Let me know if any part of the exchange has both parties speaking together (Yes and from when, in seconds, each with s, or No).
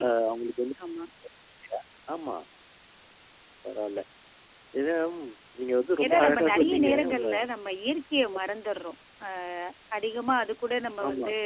Yes, from 6.0 s